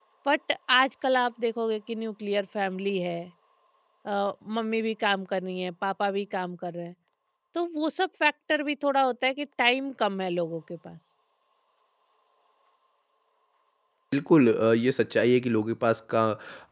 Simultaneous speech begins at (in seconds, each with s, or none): none